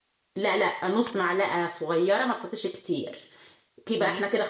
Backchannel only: Yes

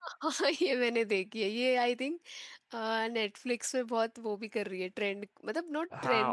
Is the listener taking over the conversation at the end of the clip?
Yes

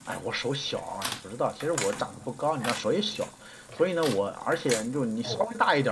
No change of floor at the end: Yes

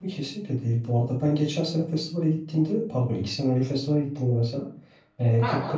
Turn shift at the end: No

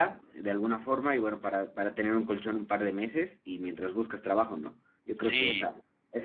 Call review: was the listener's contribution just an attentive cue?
Yes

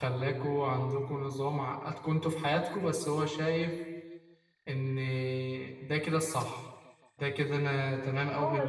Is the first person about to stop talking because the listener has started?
Yes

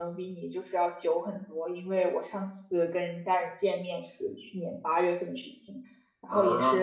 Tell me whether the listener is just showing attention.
Yes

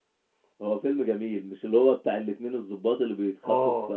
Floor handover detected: No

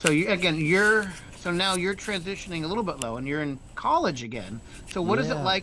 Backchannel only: Yes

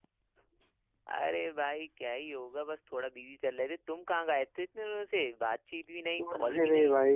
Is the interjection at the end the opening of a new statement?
Yes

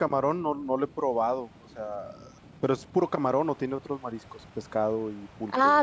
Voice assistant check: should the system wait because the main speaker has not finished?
No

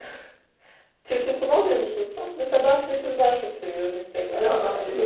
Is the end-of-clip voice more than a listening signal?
Yes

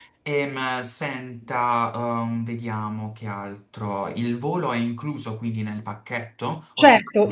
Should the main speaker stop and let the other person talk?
Yes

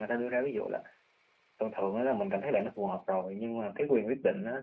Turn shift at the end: No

